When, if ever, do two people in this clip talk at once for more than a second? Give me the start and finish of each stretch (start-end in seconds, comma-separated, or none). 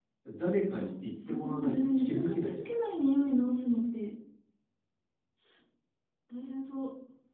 1.3-2.7